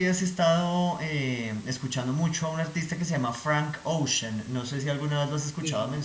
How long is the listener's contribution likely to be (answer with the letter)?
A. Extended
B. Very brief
A